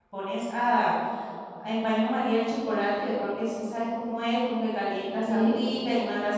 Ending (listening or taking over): listening